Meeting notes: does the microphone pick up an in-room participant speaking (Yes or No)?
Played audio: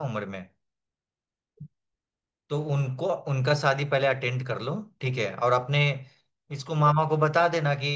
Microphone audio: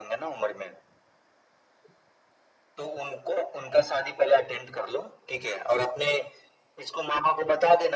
No